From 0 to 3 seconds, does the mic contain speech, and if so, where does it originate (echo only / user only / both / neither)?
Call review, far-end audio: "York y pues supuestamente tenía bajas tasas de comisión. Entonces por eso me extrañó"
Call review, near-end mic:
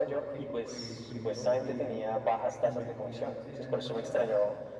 both